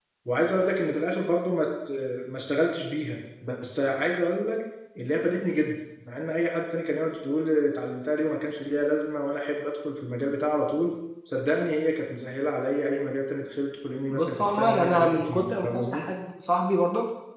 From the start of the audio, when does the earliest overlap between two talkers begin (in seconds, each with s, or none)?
14.1 s